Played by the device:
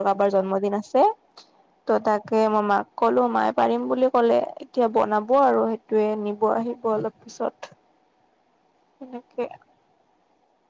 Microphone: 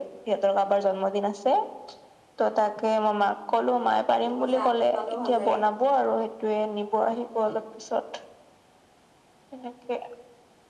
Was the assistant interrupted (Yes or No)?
Yes